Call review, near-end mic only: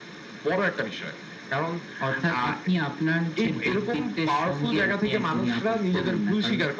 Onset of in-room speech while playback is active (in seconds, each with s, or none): none